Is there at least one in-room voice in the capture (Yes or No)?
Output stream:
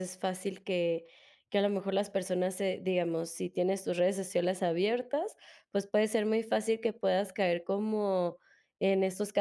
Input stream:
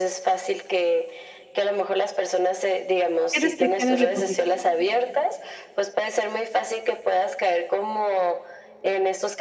Yes